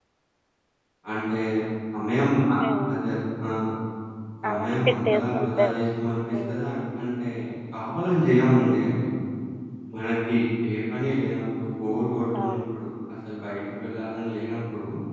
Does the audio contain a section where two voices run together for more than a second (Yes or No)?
Yes